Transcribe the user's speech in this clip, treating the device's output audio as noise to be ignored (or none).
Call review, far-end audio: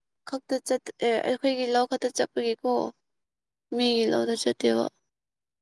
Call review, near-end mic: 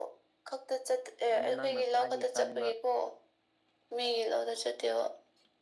ꯑꯗꯨ ꯅꯪꯅ ꯈ꯭ꯋꯥꯏꯗꯒꯤ ꯆꯥꯅꯤꯡꯕ